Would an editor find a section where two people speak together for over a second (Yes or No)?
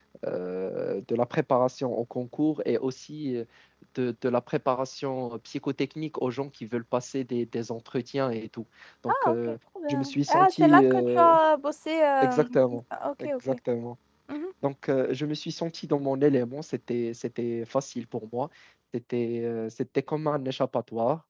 Yes